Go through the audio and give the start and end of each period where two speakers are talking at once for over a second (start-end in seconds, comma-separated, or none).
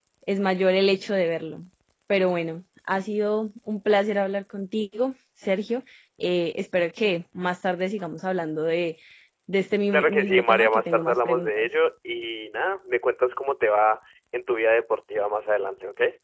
9.9-11.7